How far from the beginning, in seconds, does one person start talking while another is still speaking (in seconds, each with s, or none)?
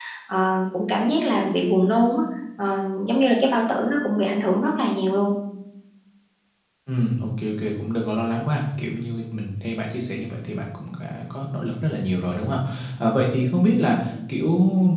none